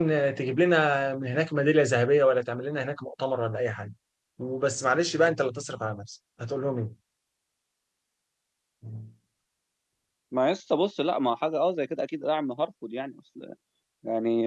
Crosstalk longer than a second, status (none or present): none